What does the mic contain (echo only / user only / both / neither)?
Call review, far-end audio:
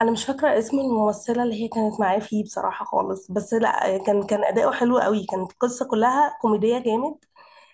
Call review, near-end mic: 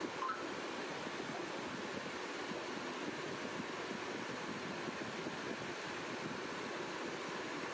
neither